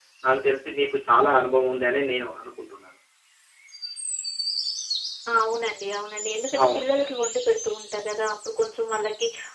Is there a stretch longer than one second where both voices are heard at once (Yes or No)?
No